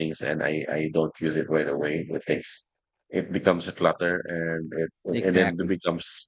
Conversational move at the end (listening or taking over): listening